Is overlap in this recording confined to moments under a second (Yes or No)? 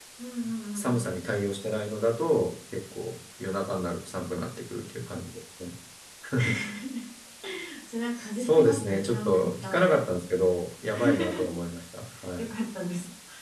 No